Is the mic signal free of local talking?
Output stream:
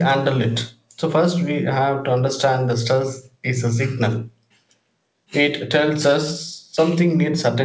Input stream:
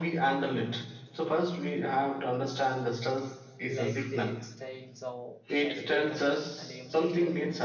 No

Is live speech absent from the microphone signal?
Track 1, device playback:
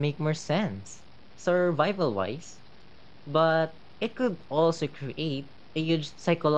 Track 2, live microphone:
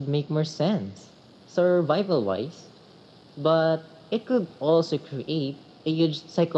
Yes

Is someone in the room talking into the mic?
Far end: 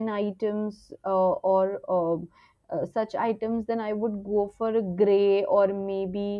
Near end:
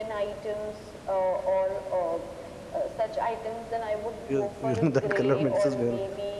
Yes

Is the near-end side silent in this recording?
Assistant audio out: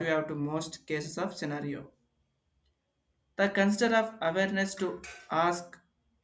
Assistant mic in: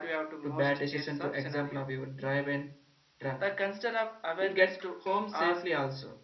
No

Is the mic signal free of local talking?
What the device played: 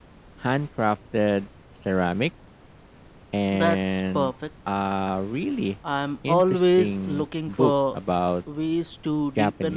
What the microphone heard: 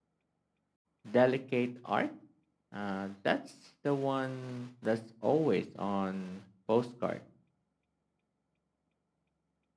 No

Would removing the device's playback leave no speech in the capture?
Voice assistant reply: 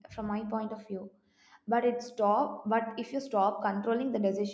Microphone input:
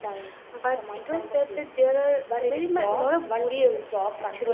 No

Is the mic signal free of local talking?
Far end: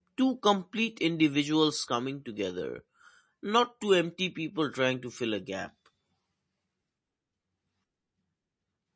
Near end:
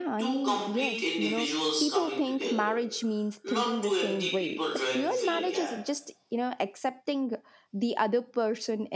No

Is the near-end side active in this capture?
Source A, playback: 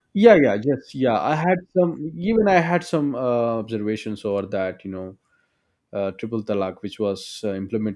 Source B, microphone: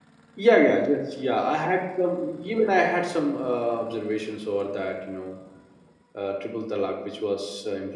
No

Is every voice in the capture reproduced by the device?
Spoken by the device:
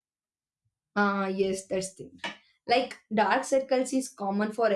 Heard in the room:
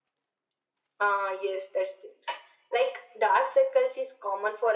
Yes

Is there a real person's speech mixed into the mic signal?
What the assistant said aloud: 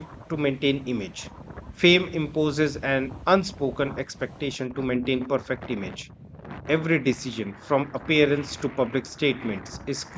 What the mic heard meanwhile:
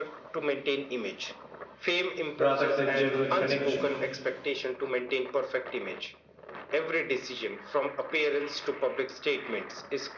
Yes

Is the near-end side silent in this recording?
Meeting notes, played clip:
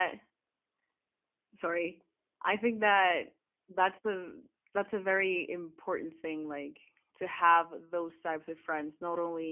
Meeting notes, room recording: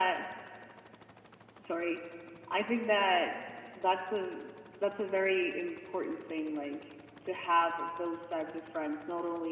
Yes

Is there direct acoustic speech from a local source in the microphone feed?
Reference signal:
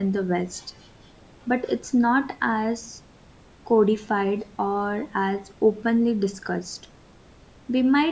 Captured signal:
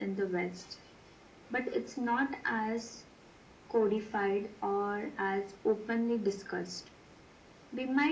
No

